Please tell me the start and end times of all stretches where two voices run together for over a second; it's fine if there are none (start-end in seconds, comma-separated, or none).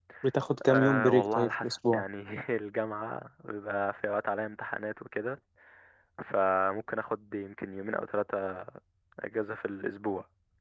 0.7-2.0